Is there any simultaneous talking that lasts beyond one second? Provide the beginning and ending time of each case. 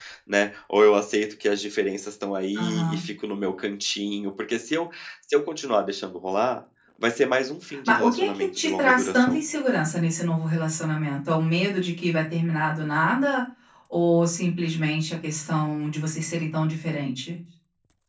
7.9-9.4

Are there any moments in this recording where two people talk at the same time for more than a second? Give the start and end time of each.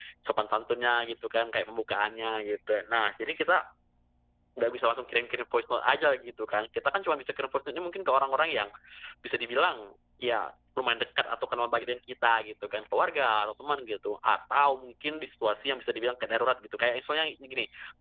none

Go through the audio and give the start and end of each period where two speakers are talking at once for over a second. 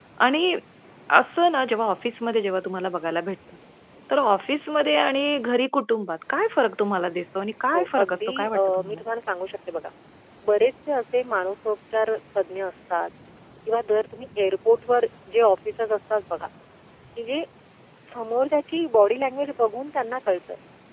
7.7-9.0

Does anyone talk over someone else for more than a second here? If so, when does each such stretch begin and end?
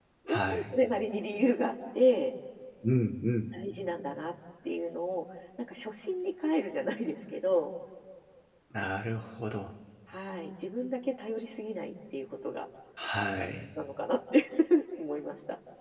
none

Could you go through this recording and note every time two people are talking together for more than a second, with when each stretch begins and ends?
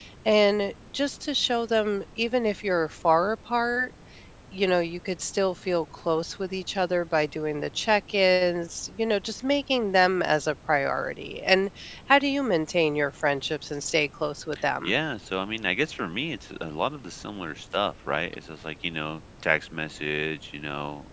none

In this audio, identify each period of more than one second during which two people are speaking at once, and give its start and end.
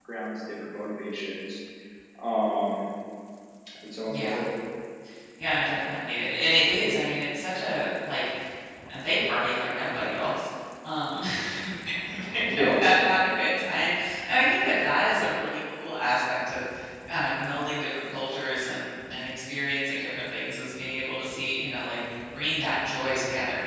none

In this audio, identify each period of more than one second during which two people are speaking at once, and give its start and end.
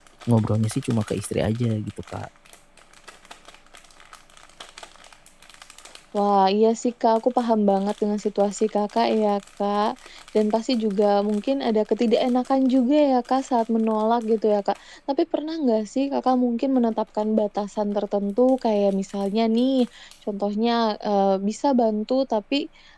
none

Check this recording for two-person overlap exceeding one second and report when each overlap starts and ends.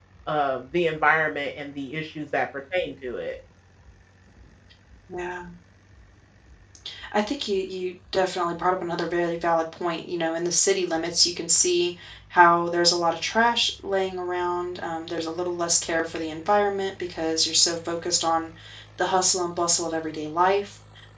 none

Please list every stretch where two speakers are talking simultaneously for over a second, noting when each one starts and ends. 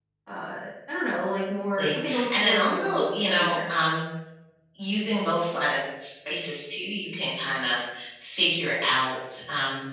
1.8-3.6

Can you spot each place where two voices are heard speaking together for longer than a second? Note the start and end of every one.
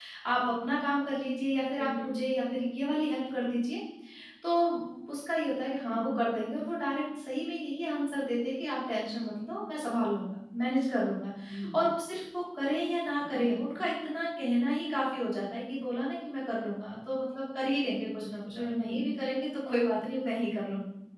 none

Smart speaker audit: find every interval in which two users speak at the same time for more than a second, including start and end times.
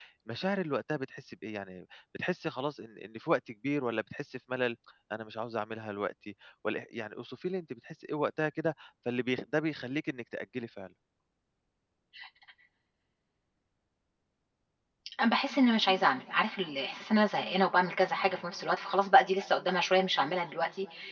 none

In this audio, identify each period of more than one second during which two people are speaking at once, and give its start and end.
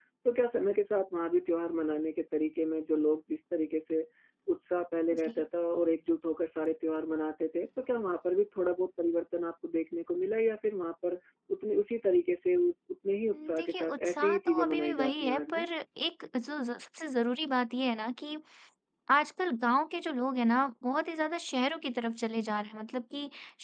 13.3-15.7

